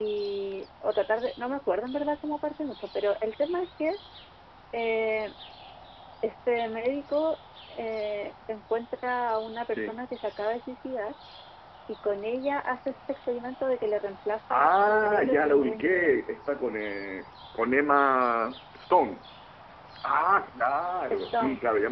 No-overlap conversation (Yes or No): No